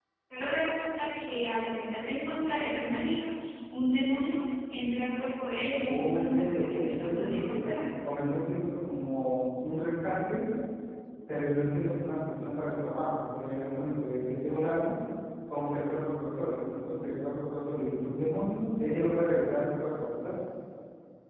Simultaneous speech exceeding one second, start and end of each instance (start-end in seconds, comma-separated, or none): 5.8-7.6